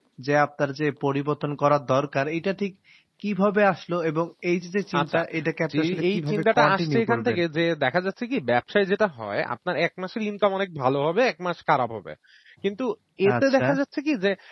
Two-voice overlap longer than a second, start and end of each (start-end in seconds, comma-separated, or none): 5.8-7.4